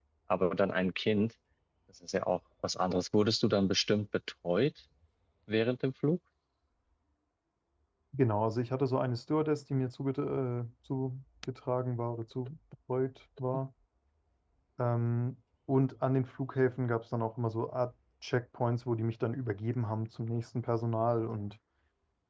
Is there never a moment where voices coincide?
Yes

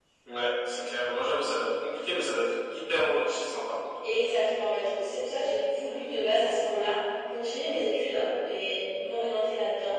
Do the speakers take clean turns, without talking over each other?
Yes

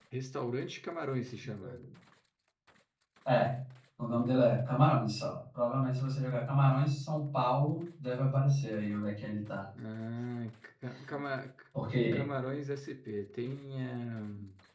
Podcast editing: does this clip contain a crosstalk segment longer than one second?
No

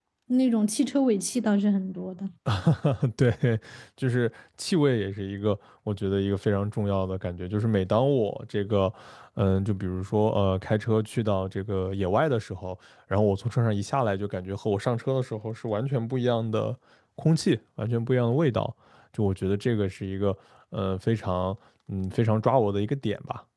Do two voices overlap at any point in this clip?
No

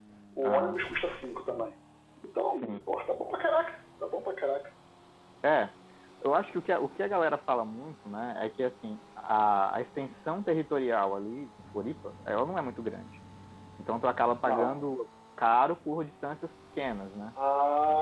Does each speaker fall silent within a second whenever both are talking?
Yes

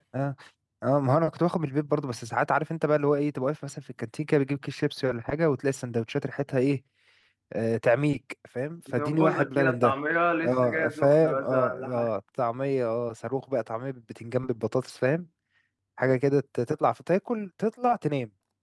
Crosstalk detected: Yes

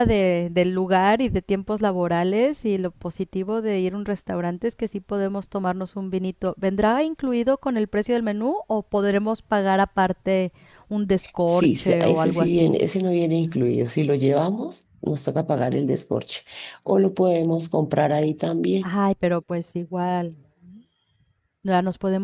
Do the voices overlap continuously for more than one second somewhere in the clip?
Yes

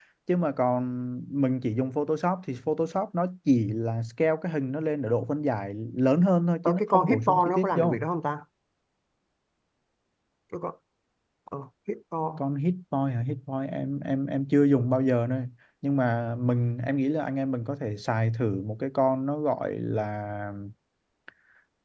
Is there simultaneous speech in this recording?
Yes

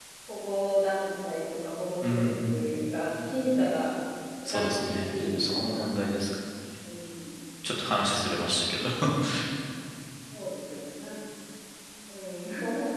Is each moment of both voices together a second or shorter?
No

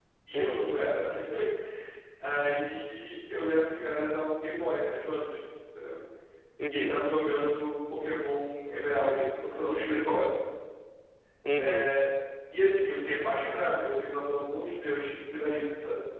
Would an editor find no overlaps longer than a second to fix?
Yes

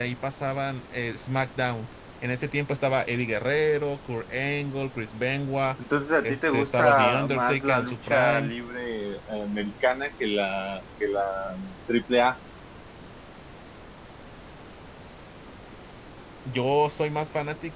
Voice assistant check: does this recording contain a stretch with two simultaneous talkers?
Yes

